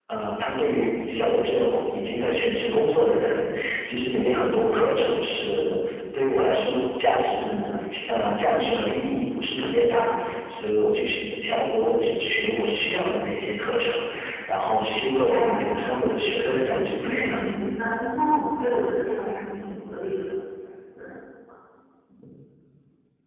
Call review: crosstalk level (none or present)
present